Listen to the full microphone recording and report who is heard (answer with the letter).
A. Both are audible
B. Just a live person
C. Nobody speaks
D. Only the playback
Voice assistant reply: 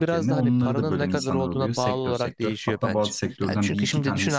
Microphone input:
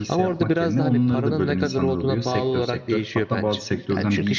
D